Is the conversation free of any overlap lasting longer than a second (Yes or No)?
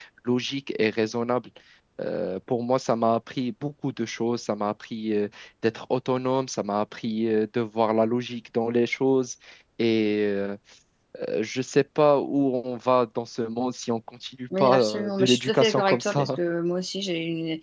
No